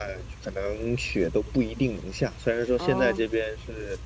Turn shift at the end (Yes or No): No